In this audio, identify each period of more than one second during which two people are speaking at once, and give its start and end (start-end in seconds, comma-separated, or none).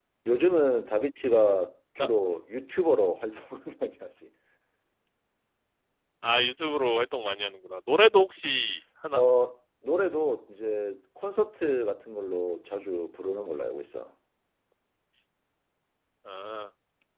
none